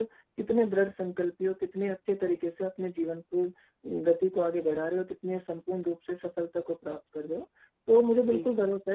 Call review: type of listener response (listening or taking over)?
listening